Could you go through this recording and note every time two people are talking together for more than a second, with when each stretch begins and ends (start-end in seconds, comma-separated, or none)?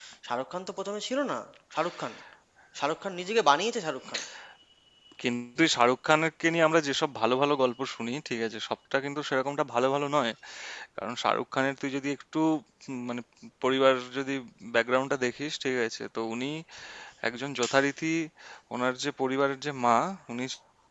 none